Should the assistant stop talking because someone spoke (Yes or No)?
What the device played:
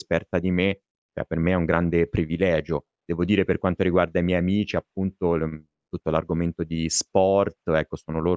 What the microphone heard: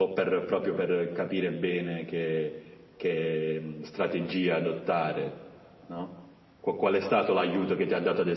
Yes